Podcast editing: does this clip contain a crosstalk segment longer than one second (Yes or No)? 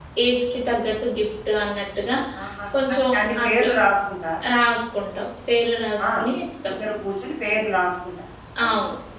No